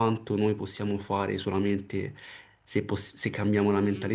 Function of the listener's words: taking over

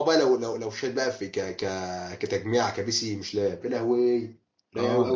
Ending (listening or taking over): taking over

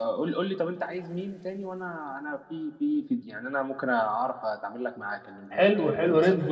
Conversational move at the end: taking over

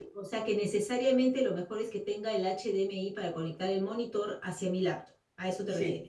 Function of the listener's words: taking over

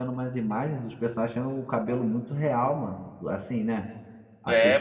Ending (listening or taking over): listening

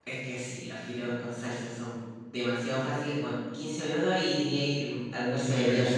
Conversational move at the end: taking over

